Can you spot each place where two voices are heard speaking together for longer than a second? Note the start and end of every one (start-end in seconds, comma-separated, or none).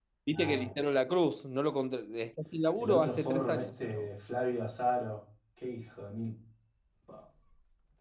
2.8-4.1